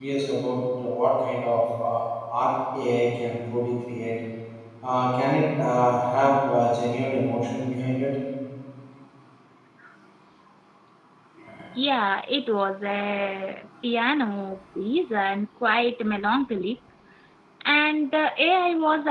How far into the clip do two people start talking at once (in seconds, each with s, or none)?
none